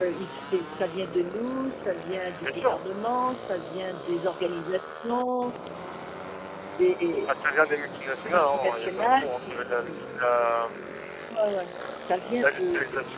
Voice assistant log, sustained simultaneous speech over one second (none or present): present